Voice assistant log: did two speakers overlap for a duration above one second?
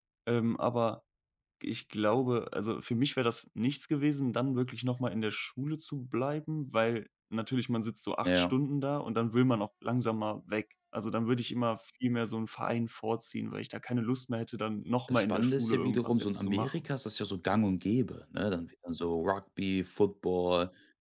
Yes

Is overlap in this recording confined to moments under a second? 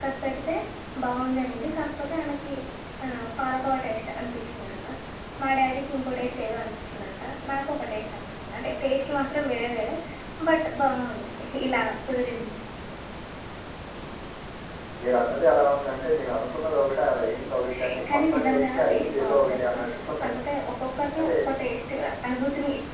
No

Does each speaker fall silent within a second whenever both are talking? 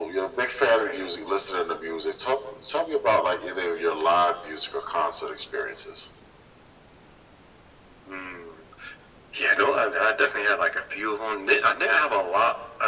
Yes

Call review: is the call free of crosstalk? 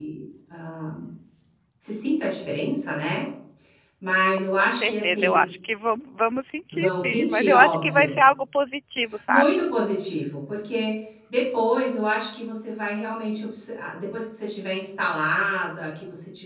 No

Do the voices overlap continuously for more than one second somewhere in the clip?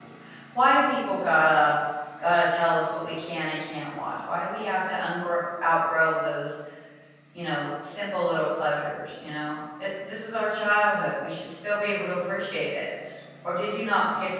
No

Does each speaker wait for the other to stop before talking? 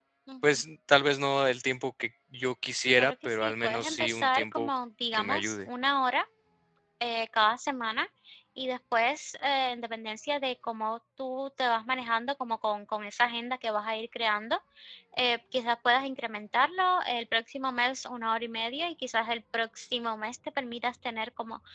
No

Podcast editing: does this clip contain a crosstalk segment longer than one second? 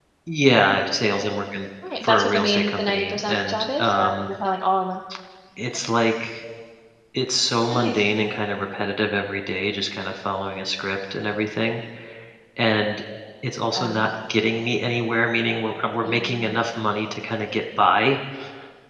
Yes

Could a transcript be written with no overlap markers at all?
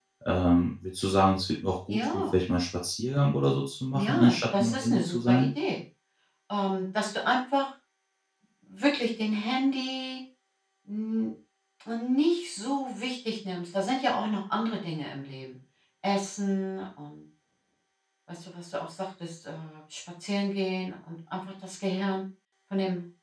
No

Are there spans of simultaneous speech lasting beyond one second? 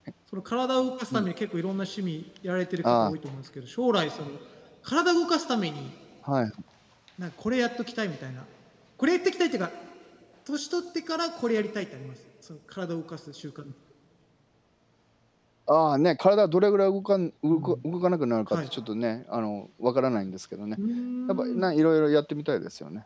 No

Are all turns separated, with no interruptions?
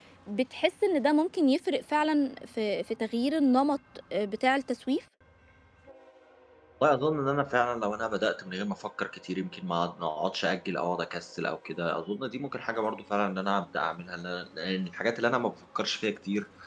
Yes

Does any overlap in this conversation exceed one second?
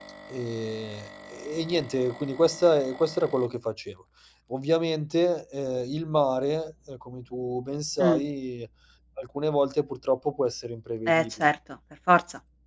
No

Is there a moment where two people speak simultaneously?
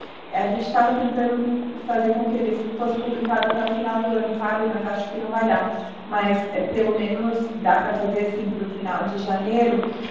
No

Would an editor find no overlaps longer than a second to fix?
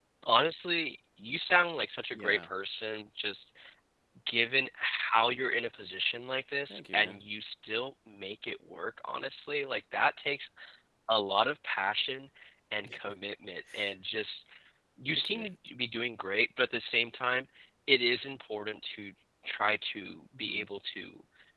Yes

